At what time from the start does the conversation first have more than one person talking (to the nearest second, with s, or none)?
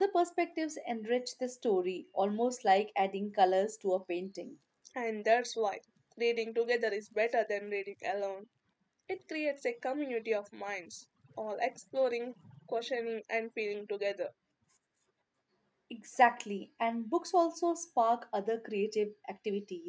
none